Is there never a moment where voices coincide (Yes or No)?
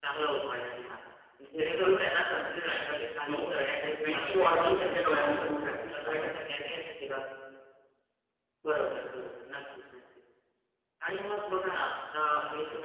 No